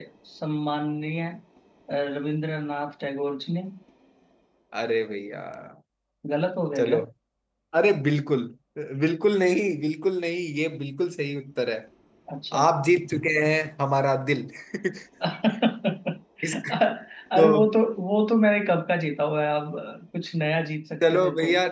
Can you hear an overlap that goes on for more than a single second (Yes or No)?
No